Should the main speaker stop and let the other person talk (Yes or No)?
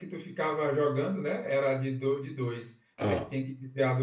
No